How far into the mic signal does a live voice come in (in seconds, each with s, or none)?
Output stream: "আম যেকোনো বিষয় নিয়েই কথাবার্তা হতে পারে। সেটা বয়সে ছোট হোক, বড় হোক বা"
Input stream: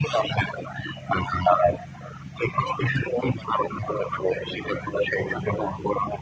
none